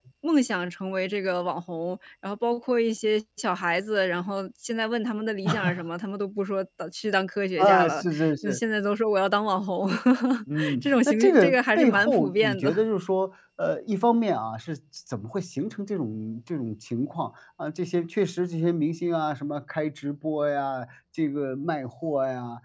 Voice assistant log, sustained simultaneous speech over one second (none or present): present